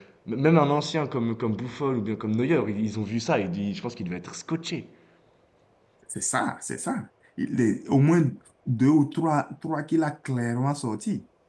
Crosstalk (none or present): none